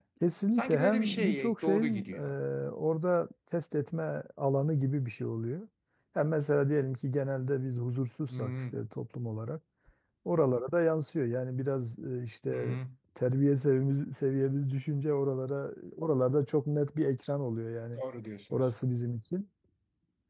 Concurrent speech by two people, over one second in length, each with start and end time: 0.6-2.2

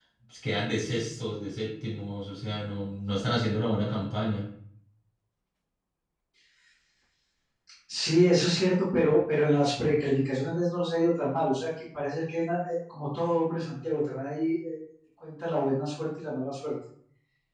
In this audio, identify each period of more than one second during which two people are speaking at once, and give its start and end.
none

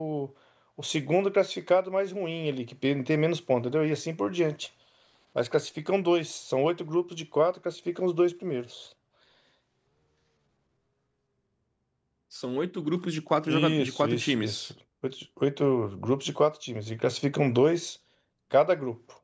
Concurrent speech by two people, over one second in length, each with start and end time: 13.5-14.7

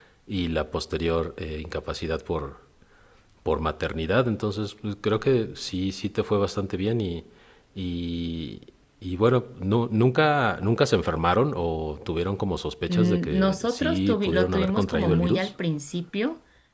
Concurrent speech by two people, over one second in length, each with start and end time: 12.9-15.5

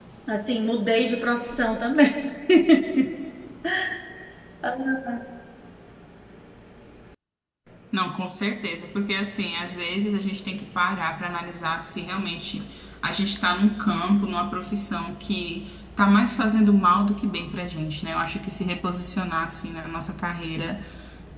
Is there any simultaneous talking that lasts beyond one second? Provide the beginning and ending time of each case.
none

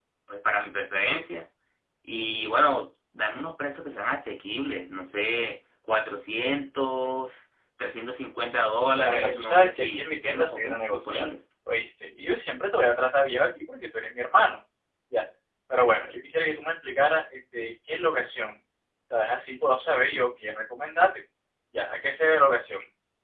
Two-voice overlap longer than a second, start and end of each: 9.0-11.2

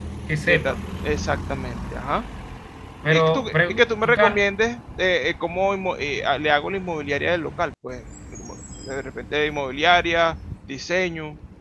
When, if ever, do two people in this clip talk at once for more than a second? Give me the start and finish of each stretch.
3.1-4.4

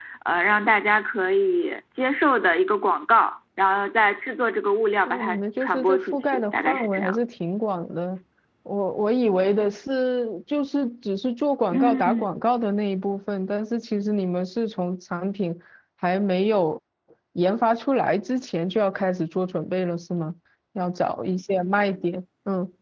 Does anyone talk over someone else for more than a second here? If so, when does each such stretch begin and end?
5.1-7.2

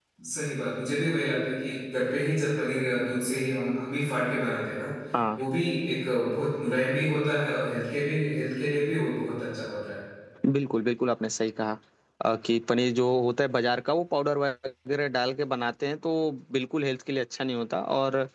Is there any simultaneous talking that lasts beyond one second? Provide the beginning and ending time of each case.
none

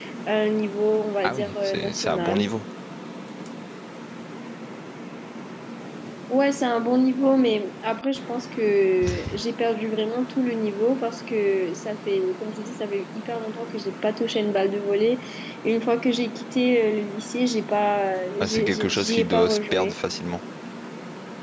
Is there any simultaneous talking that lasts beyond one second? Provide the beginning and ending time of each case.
1.2-2.5, 18.4-19.9

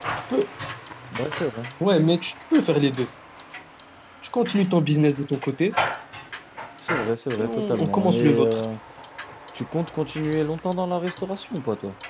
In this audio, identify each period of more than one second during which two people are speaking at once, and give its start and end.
7.4-8.6

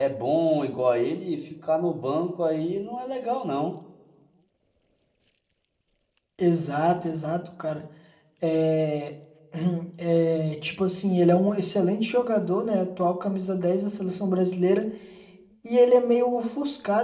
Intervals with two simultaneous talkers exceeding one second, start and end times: none

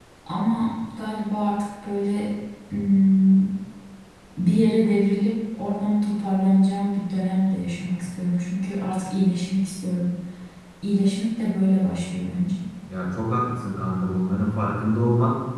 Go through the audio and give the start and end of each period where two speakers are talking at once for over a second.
none

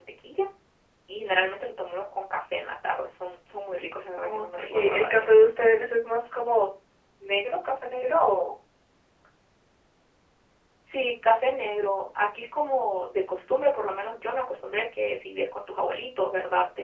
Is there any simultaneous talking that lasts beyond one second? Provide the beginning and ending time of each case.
4.2-5.5

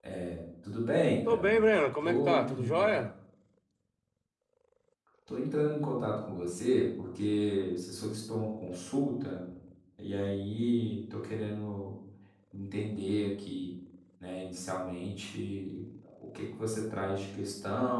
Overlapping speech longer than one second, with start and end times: 1.3-3.0

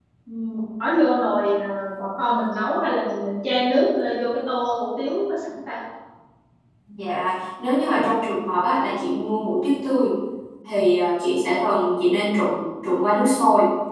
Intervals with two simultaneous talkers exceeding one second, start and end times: none

